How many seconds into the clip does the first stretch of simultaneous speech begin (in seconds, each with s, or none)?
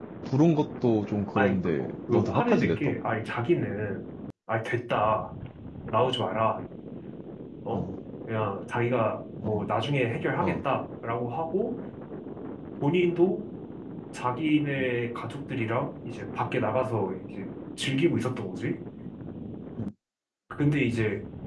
1.4 s